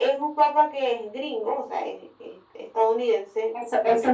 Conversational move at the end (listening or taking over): taking over